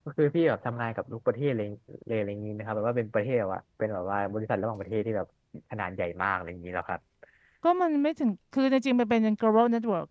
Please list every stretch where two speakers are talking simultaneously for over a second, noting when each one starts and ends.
none

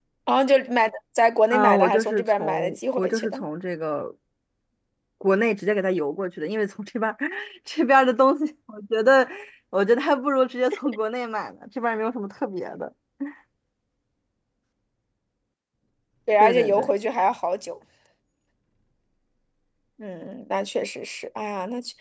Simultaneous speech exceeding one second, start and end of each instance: 1.5-3.4

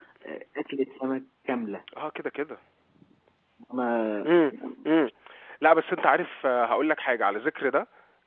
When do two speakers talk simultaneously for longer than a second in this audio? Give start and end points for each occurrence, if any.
none

